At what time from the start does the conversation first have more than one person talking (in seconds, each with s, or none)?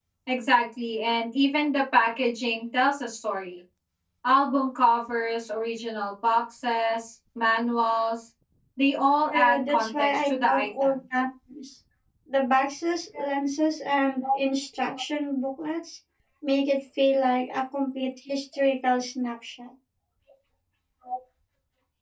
9.3 s